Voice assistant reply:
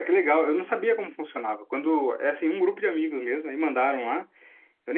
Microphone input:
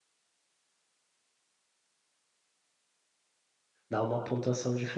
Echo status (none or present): none